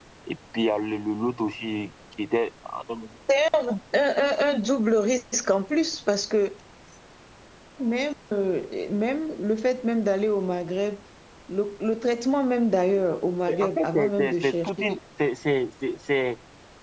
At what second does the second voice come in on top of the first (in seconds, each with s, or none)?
13.5 s